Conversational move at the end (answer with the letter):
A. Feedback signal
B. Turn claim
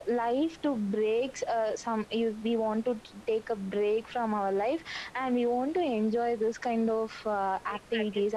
B